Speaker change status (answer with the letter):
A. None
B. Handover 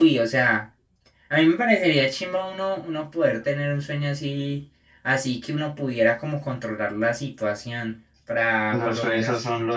B